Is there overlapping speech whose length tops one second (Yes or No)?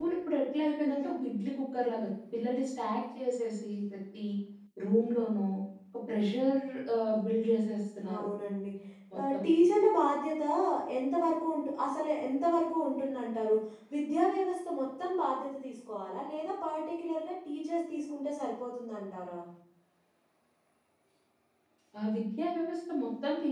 No